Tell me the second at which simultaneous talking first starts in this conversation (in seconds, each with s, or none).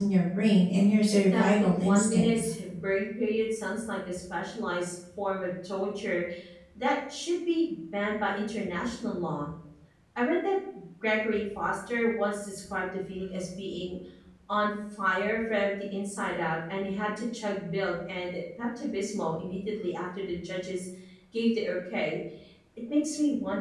1.3 s